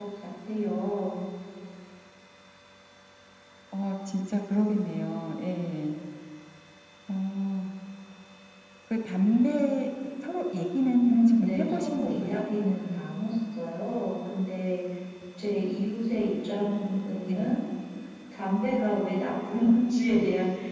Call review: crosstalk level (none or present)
present